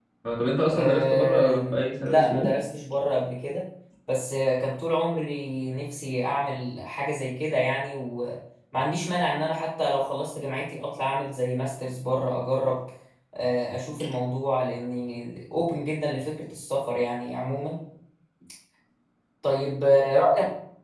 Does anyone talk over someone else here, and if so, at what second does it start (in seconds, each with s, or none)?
0.7 s